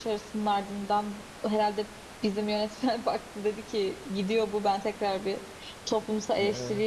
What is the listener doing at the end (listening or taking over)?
listening